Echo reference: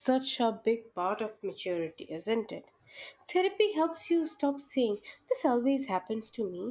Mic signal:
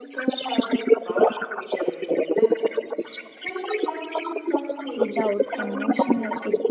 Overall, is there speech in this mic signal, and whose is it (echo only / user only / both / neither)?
both